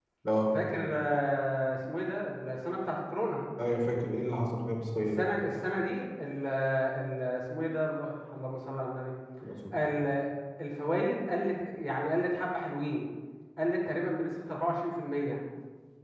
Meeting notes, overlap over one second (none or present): none